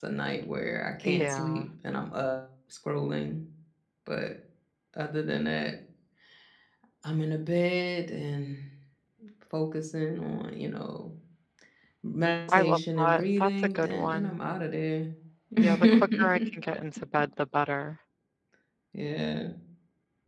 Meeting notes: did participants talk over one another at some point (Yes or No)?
Yes